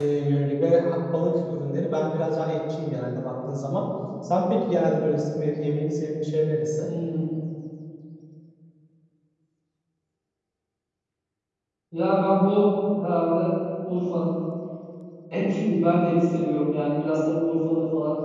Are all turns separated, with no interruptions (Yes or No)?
Yes